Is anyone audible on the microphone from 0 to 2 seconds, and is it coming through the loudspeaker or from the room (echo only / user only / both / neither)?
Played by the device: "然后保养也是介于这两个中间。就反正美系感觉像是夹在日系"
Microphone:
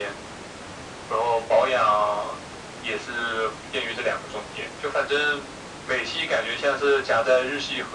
echo only